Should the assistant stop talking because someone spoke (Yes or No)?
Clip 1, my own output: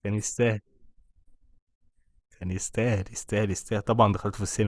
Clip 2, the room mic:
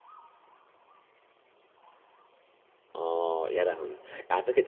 Yes